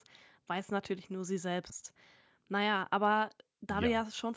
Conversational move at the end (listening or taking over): listening